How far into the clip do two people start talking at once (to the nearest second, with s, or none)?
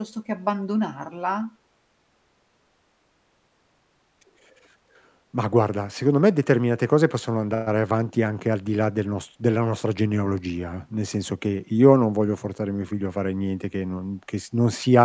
none